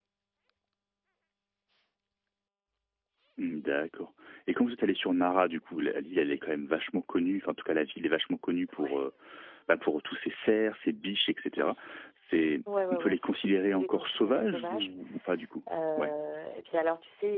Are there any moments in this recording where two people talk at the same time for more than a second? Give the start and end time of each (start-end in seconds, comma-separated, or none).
12.9-14.9